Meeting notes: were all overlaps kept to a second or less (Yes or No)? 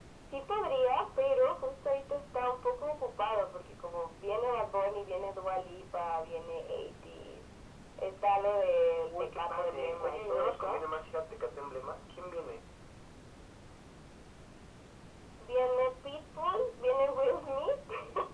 No